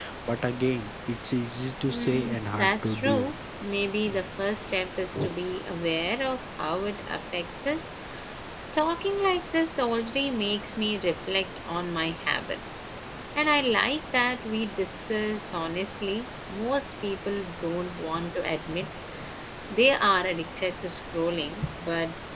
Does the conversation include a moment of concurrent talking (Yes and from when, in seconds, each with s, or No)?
Yes, from 1.9 s